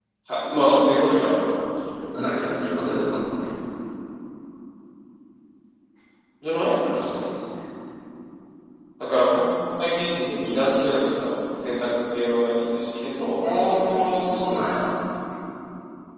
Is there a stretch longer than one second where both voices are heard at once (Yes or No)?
Yes